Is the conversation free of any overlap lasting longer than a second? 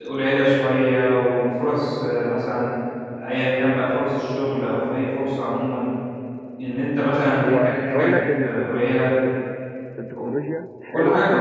No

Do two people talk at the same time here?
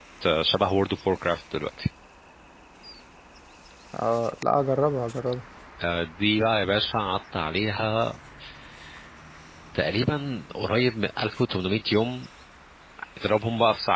No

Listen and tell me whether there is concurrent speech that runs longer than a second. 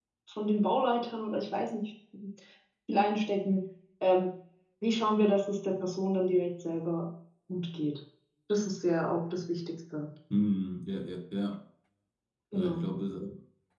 No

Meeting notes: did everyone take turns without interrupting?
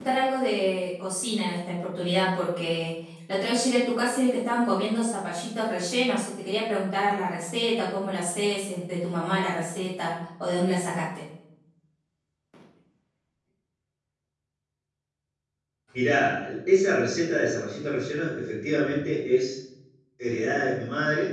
Yes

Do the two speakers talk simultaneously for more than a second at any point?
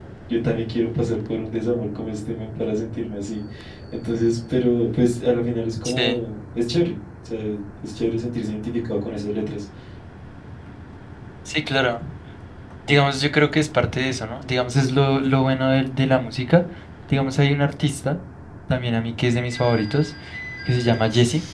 No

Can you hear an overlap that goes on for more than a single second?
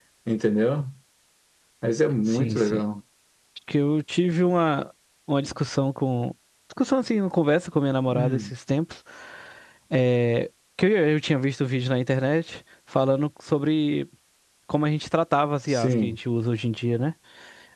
No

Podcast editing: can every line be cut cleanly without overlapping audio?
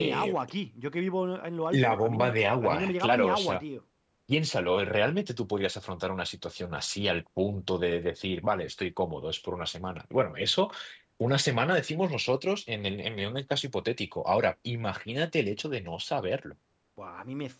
No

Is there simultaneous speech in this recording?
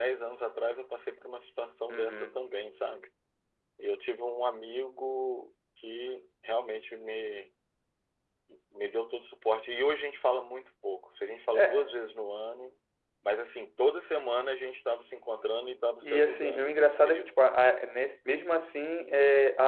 Yes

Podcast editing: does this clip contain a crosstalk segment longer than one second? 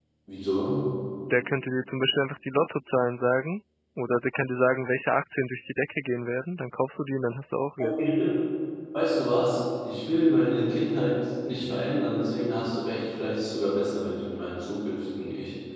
No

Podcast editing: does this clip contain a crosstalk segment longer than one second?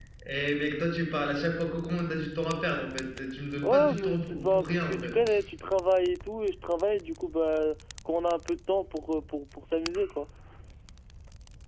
Yes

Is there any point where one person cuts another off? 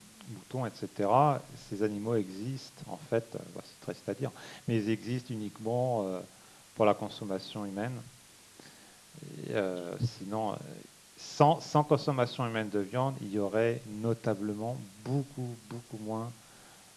No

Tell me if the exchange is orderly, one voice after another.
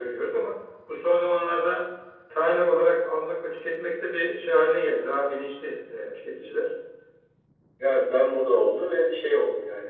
Yes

